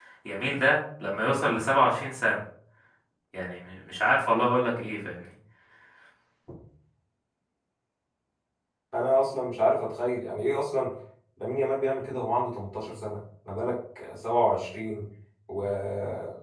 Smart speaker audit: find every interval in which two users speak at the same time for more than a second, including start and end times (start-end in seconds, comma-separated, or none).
none